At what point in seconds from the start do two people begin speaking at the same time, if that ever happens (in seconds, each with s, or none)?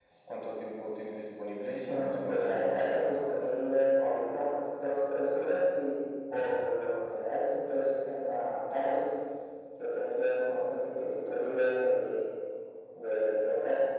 1.9 s